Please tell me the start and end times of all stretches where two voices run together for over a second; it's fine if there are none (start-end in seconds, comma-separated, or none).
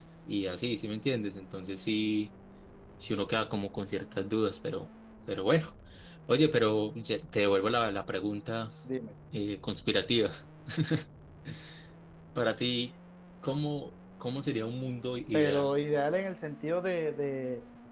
none